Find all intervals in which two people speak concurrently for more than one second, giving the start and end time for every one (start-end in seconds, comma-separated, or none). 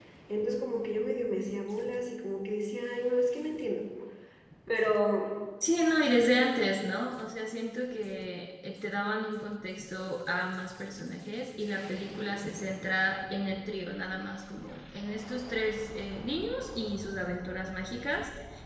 none